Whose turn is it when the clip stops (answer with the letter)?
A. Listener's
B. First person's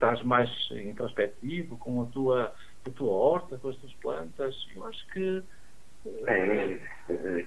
A